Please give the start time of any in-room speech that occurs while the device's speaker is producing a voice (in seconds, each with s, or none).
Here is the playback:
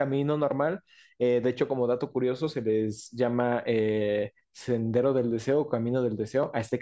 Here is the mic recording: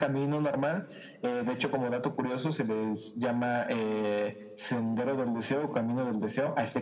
none